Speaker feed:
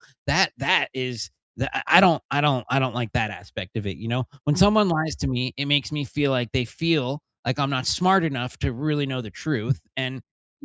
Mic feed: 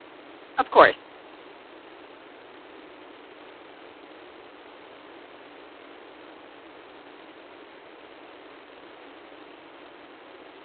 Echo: none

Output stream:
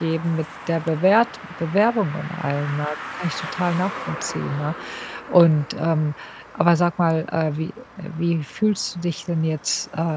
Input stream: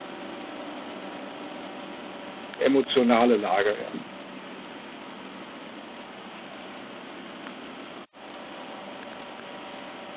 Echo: none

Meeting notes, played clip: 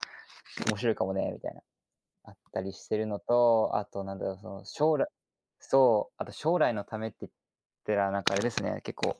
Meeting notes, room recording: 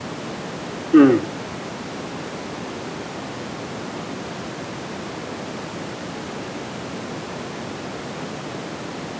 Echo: none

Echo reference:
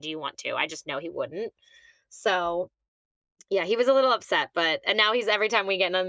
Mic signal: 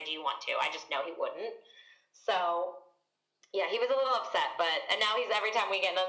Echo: present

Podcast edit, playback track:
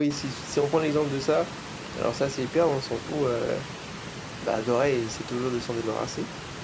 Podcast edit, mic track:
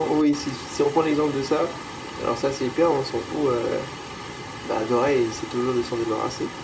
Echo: present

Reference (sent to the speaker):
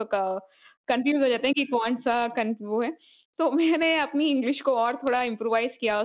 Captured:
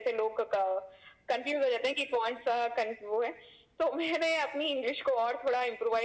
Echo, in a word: present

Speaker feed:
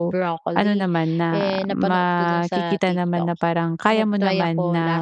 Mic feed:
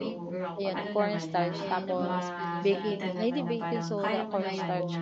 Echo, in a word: present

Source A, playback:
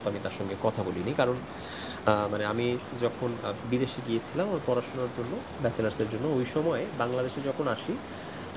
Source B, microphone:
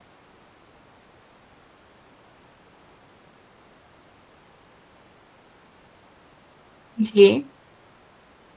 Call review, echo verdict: none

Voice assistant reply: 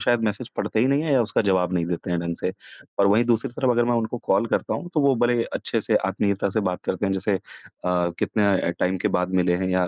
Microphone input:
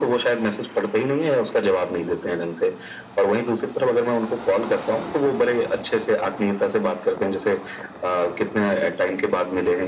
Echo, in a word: present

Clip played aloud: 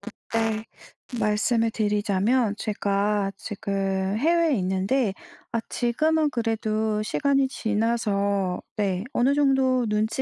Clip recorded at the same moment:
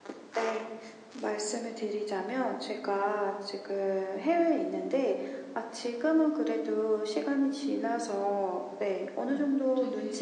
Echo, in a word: present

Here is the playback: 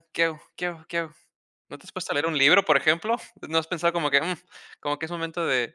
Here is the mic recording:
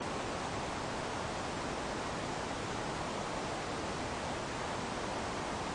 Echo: none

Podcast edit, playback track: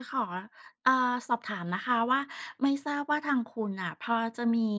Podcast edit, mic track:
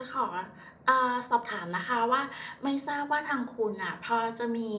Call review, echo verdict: present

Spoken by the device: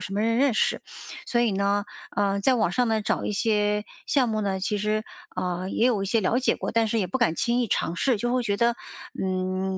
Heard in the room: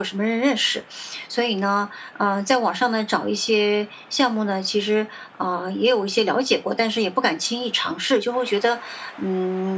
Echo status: present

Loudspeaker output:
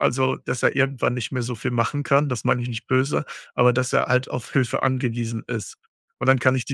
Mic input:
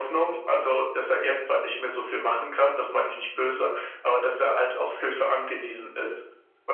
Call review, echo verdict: present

